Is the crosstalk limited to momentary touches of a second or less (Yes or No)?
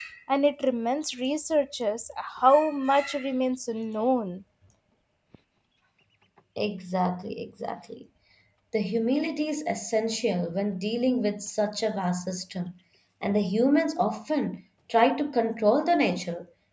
Yes